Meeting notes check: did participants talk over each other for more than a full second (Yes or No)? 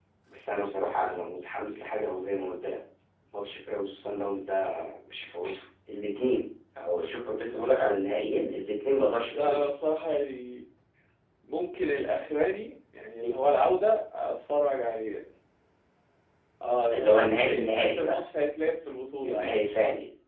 Yes